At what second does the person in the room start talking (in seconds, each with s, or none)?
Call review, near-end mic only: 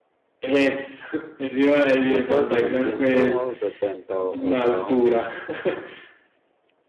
2.0 s